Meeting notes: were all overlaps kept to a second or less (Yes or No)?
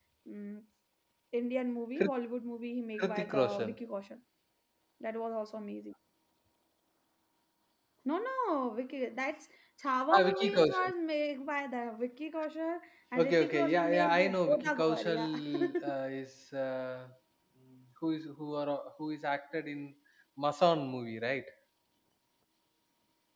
No